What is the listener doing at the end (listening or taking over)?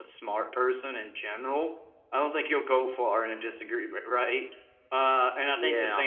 listening